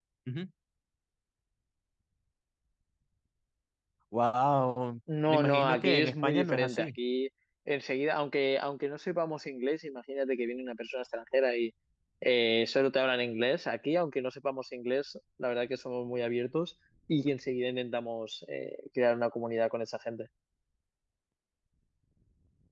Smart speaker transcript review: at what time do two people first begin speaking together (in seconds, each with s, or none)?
5.1 s